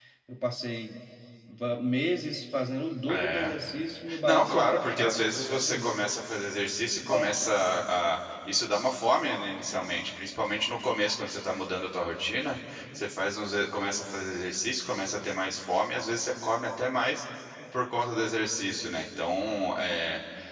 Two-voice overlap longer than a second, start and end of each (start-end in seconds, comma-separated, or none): 4.2-6.0